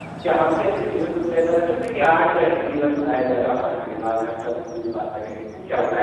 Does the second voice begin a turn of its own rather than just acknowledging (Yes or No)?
Yes